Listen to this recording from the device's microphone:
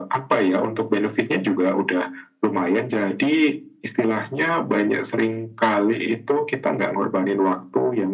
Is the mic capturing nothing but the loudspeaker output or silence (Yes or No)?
Yes